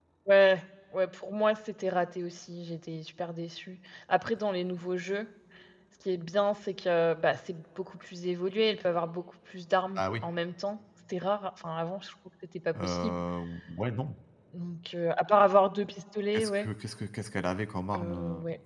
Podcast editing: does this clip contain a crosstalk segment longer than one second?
No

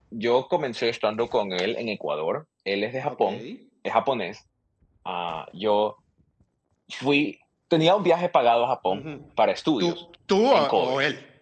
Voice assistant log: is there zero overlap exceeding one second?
Yes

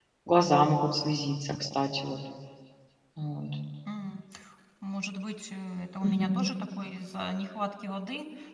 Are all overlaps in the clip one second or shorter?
Yes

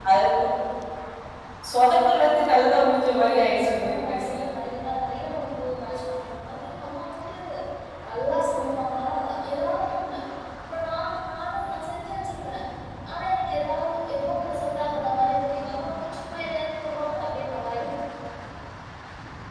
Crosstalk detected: Yes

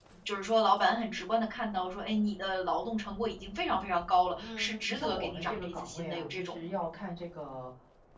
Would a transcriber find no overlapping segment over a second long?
No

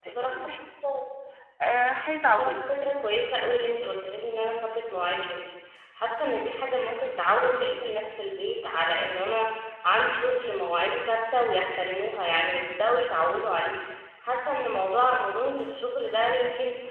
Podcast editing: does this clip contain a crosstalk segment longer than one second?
No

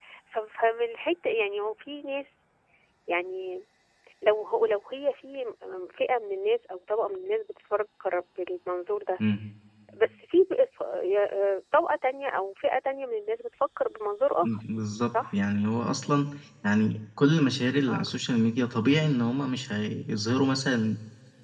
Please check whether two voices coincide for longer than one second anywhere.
No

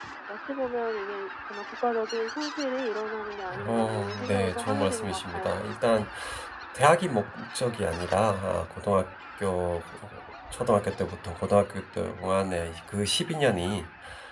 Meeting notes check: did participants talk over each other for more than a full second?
Yes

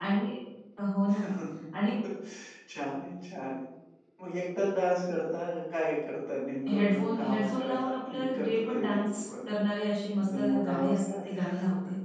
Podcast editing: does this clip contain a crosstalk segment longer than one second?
Yes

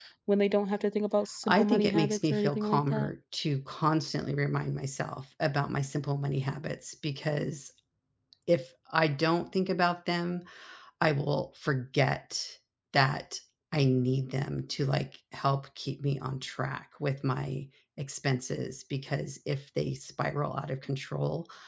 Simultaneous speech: Yes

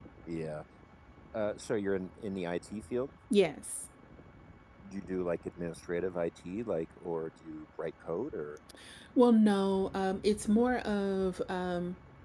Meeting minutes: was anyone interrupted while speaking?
No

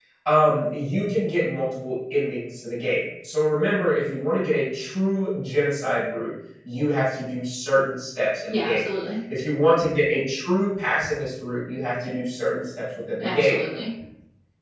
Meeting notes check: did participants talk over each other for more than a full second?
No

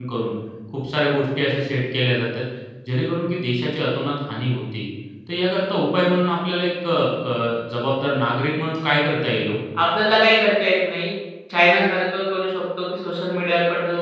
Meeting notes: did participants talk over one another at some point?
No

